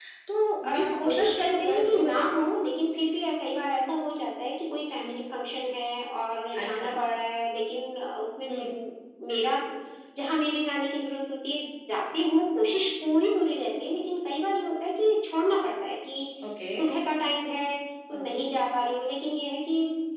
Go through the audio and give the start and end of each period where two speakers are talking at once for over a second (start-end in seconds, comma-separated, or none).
0.6-2.4